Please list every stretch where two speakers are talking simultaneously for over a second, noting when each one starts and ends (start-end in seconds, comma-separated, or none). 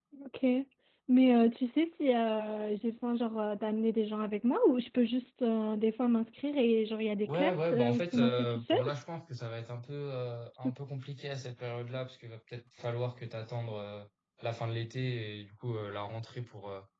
7.3-8.8